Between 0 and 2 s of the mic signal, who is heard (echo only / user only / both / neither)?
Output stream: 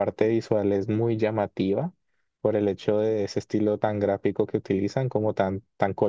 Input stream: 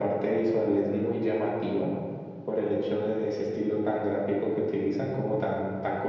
echo only